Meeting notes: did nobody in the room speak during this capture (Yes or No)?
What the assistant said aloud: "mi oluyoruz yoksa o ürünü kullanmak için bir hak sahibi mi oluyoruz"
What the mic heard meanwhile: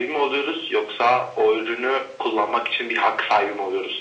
Yes